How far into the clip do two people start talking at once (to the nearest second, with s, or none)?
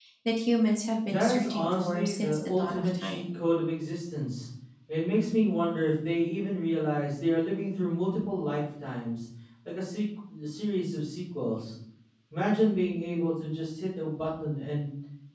1 s